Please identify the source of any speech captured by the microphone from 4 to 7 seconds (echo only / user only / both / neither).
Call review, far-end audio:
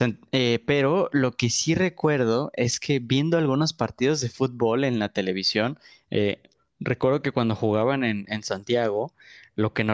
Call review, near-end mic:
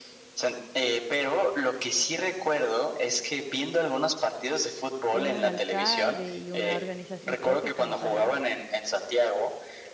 both